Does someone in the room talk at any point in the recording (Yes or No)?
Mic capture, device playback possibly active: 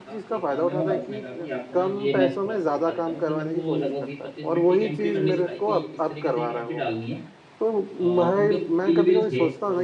Yes